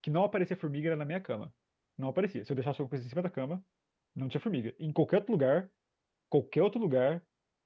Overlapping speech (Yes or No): No